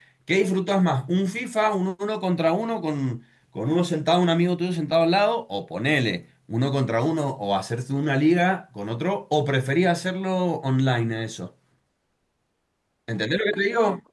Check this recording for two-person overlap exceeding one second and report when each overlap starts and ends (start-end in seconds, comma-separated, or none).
none